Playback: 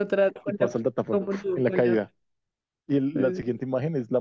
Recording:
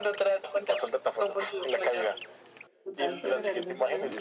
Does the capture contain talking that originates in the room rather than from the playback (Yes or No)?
Yes